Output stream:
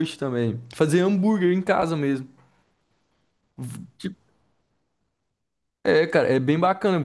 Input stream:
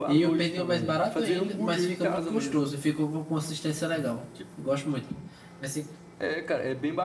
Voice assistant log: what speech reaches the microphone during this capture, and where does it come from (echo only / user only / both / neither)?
both